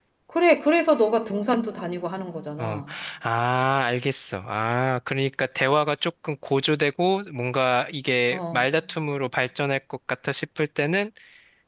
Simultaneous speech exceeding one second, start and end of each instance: none

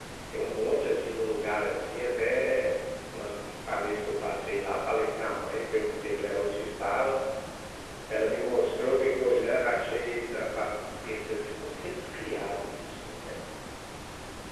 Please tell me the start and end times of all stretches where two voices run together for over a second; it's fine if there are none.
none

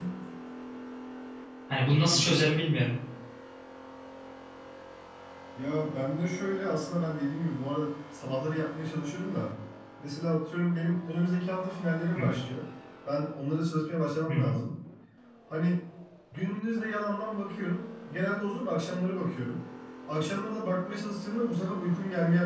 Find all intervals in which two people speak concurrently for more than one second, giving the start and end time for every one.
none

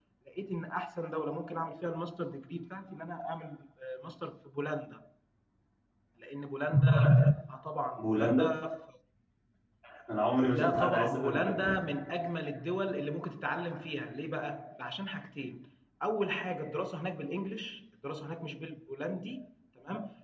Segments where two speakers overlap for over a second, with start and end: 10.5-11.7

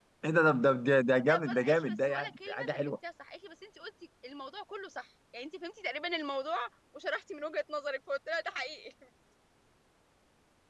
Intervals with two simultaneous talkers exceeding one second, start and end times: 1.3-3.0

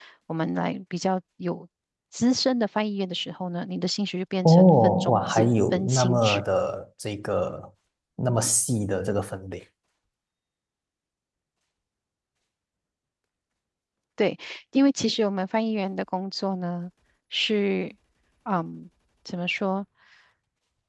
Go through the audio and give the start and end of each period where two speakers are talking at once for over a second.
4.5-6.4

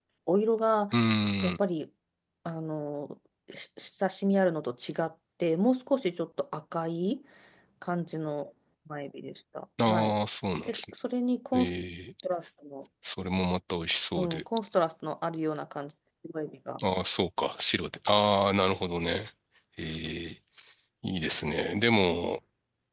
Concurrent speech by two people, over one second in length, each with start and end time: none

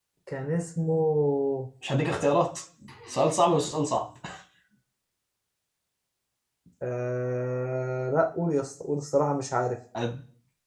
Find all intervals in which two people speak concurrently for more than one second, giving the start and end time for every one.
none

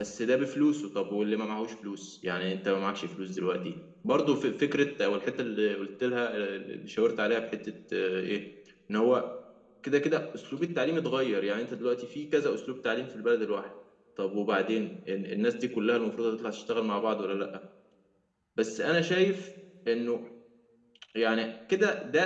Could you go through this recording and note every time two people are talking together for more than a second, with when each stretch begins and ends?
none

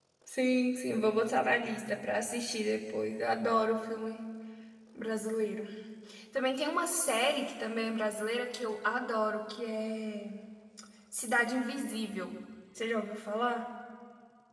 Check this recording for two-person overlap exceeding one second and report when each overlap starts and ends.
none

